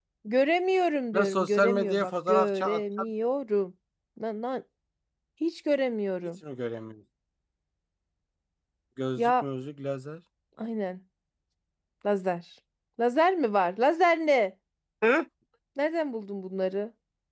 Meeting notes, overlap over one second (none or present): present